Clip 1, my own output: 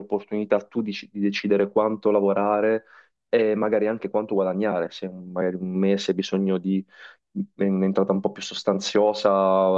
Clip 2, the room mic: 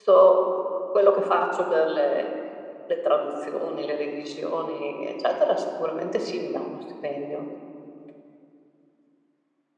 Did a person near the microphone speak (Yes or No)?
Yes